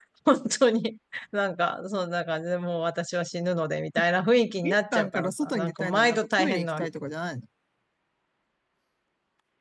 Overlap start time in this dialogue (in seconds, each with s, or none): 4.6 s